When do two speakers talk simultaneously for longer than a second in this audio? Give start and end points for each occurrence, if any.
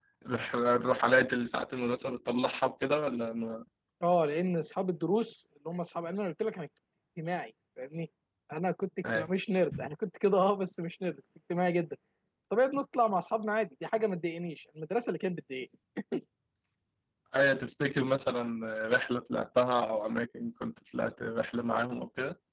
none

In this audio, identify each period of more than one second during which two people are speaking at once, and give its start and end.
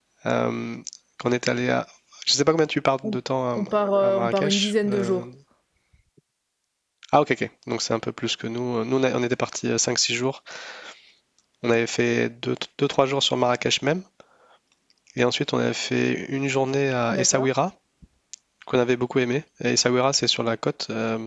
4.0-5.2

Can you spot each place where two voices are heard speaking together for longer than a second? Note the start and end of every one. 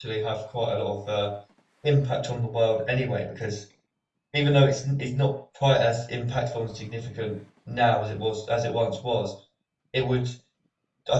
none

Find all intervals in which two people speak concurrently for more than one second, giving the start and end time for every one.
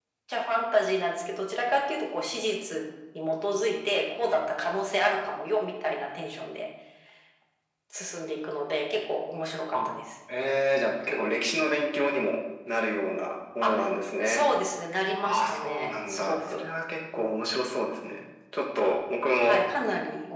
15.2-16.7

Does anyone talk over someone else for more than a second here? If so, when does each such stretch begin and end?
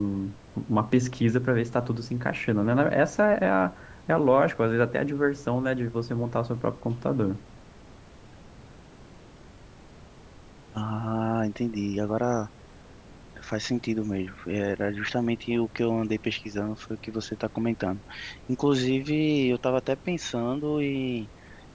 none

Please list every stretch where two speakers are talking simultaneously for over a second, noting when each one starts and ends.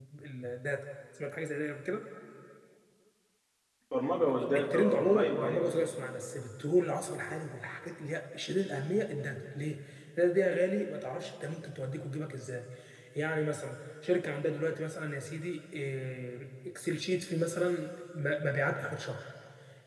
4.3-5.7

